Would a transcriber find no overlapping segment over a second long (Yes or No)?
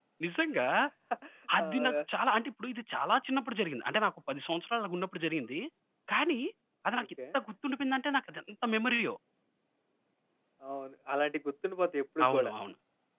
Yes